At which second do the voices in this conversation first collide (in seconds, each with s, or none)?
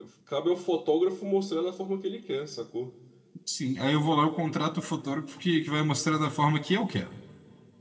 none